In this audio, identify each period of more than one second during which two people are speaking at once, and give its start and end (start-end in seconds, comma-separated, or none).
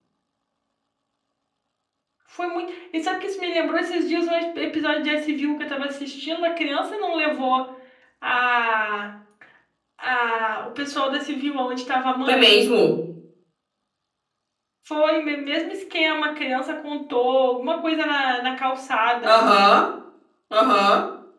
none